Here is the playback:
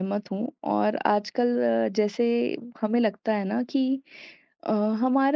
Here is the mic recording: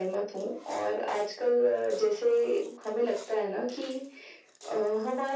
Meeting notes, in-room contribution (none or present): none